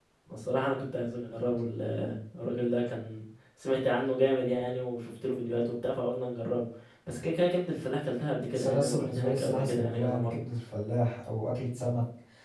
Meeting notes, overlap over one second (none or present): present